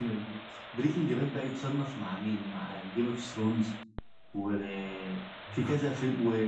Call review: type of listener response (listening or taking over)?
listening